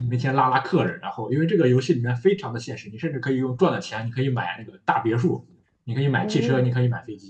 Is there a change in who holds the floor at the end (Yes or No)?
No